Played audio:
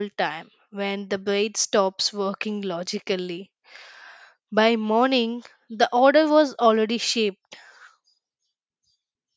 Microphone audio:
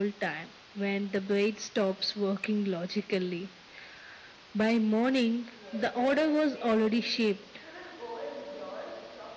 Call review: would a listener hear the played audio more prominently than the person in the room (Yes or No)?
Yes